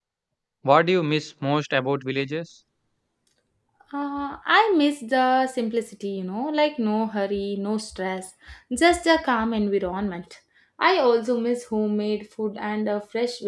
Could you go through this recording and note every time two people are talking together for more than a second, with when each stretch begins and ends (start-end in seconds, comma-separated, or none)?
none